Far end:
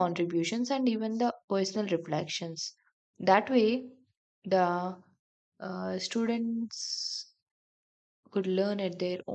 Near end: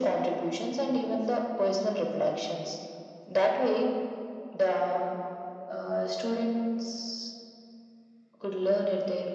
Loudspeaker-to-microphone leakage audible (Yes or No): Yes